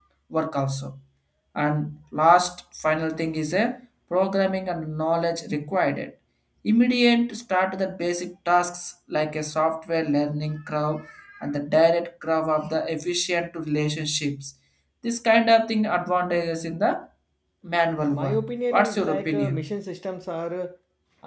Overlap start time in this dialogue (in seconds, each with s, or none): 18.1 s